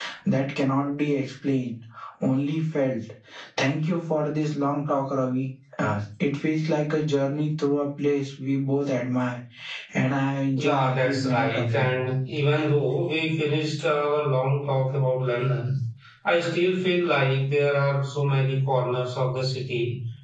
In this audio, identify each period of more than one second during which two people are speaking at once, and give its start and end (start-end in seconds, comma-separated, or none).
10.6-11.9